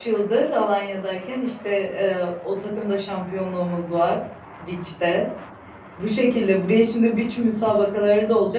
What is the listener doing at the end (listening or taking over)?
listening